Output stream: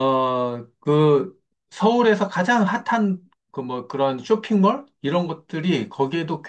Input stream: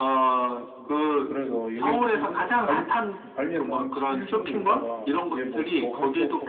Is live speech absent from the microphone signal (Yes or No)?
No